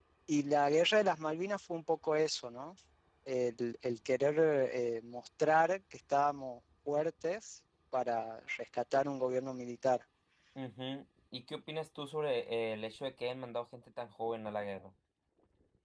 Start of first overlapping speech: none

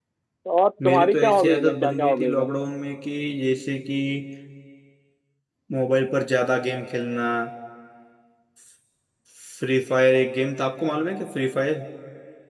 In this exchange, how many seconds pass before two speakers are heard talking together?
0.8 s

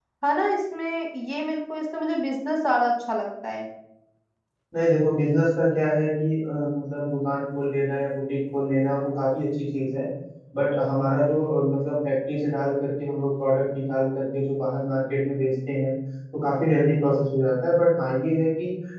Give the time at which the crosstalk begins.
none

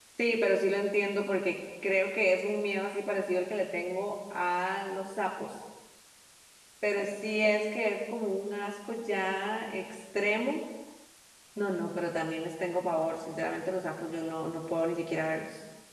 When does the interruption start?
none

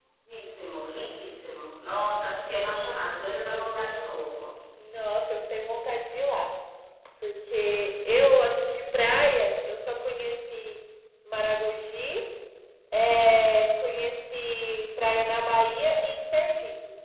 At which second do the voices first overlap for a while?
none

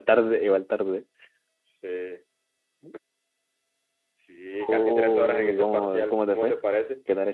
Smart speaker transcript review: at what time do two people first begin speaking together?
4.7 s

